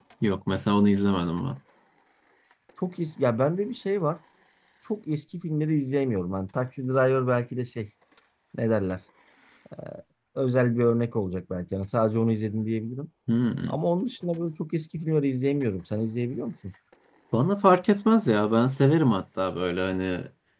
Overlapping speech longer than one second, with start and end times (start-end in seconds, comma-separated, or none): none